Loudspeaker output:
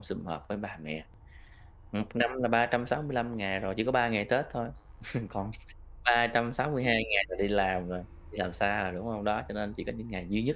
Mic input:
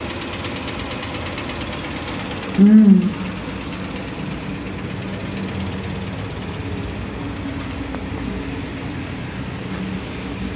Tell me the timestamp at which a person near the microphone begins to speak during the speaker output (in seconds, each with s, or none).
2.6 s